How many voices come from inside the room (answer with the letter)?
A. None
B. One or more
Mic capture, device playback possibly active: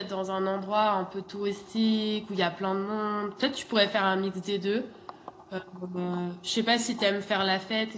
A